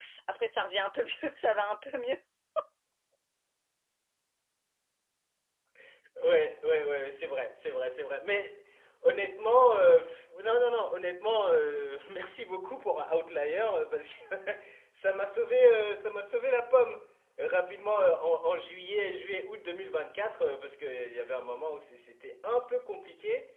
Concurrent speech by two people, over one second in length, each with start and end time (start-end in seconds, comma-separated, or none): none